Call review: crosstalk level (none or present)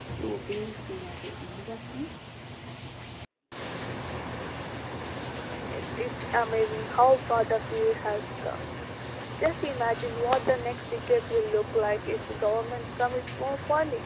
none